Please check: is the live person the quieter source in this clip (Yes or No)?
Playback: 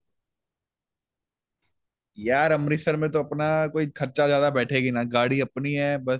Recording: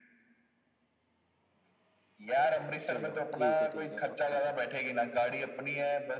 Yes